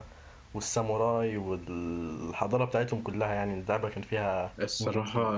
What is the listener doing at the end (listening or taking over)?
taking over